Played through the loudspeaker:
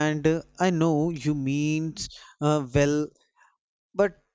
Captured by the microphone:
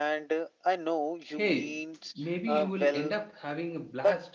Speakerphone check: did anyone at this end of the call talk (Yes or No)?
Yes